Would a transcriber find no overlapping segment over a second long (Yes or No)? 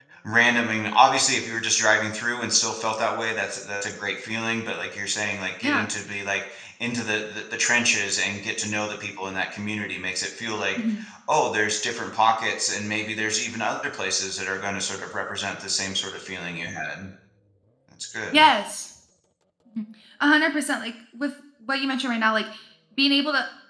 Yes